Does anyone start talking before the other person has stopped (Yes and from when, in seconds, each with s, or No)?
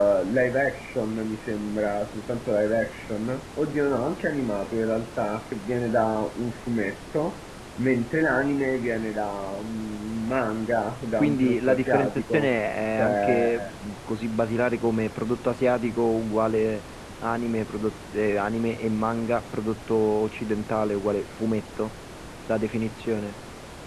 Yes, from 11.2 s